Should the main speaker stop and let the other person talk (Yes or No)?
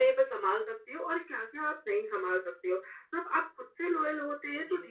No